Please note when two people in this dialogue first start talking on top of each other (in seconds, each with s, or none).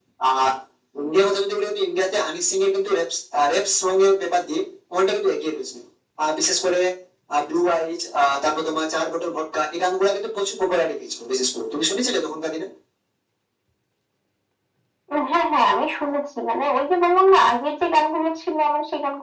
none